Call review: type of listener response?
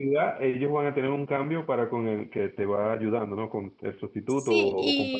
taking over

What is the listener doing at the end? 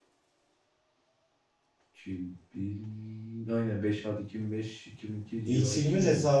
taking over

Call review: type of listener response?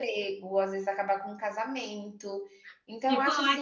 taking over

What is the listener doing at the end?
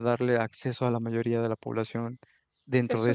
taking over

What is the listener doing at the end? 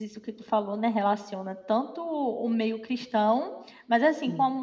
listening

